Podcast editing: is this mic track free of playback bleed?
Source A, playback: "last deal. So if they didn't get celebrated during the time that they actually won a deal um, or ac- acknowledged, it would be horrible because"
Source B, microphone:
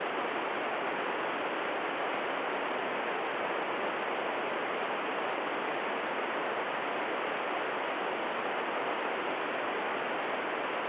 Yes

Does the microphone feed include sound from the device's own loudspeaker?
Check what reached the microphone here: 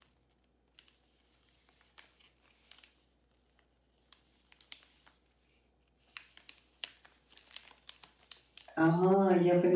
No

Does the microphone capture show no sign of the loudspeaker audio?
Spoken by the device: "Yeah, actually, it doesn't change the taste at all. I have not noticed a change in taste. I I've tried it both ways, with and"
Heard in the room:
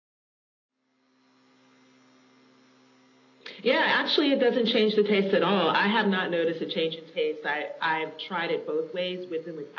No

